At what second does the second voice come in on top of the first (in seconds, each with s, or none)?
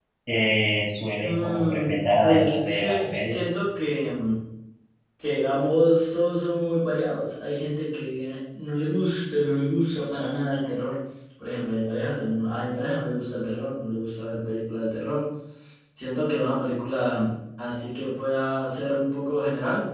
1.2 s